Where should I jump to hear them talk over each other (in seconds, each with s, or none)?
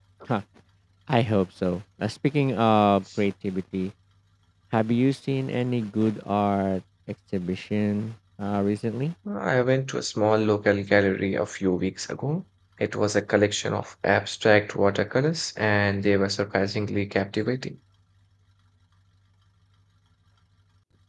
none